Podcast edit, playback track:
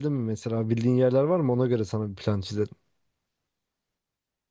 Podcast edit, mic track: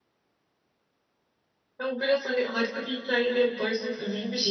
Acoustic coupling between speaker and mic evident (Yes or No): No